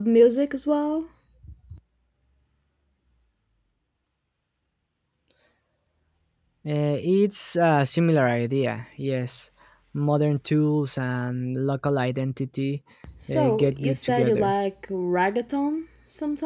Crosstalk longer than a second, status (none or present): present